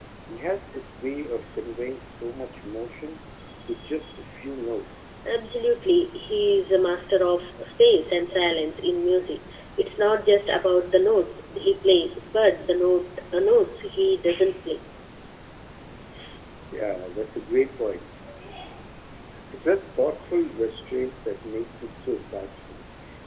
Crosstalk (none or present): none